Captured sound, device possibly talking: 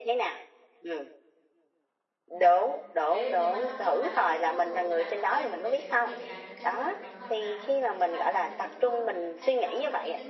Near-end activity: present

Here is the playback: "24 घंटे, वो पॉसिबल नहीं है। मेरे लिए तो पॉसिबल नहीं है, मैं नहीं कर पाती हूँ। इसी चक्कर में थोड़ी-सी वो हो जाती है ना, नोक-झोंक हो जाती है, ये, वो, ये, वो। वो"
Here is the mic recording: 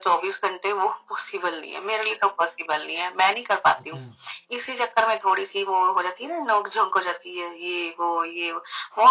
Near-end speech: present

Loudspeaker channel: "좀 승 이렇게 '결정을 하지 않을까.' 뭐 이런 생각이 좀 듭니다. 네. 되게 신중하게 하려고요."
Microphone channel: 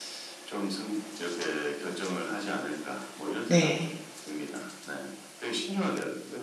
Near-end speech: present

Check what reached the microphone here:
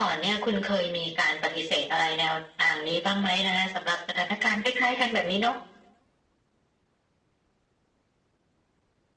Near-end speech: none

